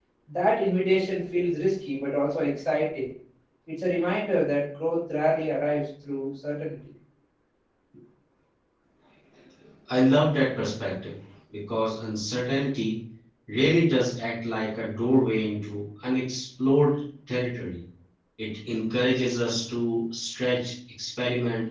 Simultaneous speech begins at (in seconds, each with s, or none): none